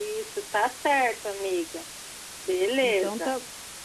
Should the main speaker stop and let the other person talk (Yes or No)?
Yes